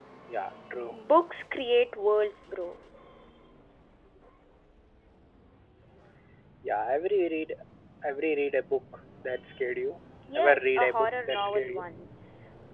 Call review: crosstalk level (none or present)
present